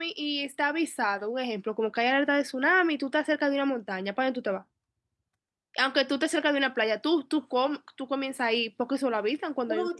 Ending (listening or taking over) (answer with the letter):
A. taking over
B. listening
A